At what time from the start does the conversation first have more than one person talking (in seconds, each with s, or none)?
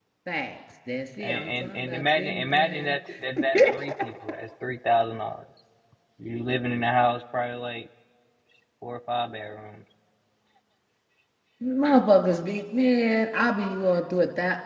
1.2 s